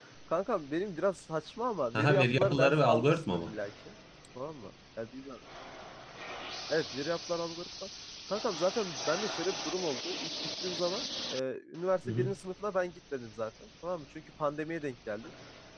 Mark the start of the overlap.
1.9 s

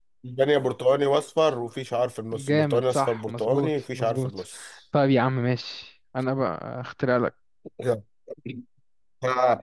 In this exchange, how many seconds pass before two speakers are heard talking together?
2.3 s

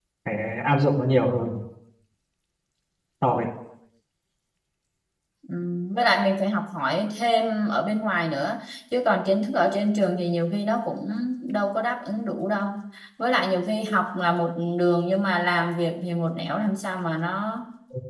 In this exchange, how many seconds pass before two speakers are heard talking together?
none

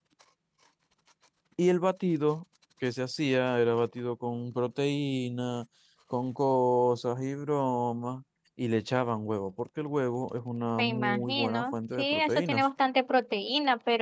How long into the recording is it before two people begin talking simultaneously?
10.8 s

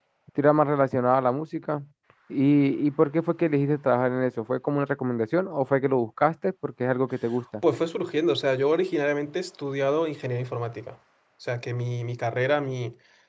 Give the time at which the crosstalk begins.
none

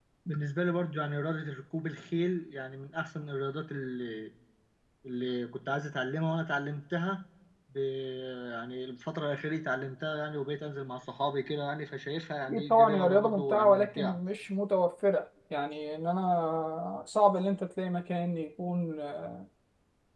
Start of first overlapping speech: 12.5 s

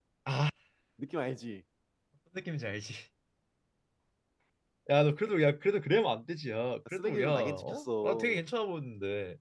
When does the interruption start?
6.8 s

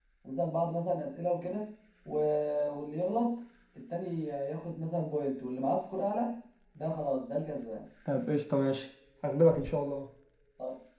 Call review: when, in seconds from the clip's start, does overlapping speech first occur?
none

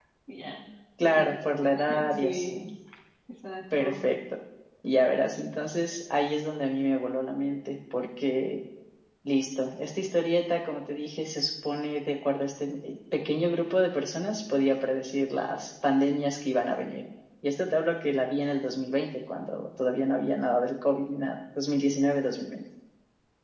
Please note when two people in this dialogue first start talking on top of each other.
1.0 s

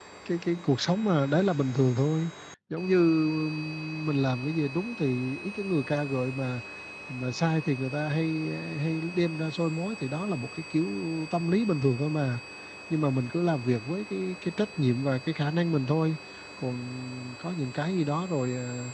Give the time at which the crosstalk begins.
none

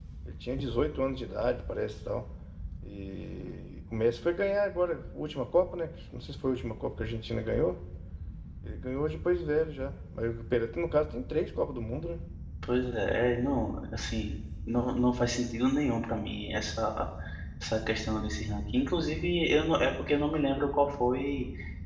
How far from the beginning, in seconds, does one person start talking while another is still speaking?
none

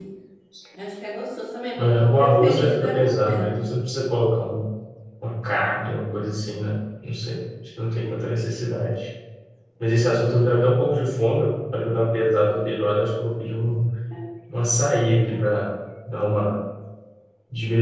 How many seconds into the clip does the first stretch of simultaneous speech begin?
1.8 s

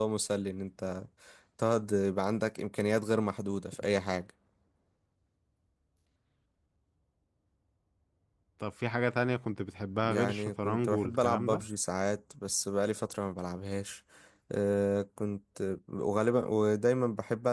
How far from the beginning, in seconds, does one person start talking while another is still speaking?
10.0 s

